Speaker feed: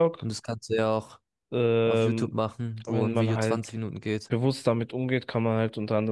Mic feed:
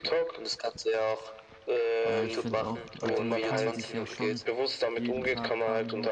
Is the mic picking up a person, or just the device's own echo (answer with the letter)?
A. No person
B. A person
B